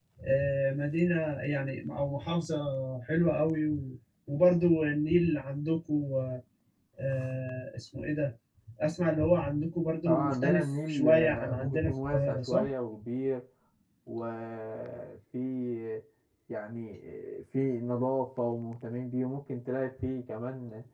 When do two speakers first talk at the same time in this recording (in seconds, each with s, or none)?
10.1 s